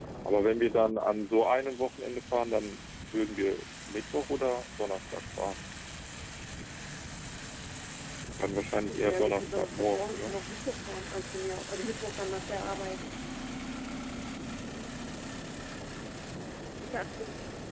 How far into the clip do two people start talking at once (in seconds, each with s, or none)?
8.9 s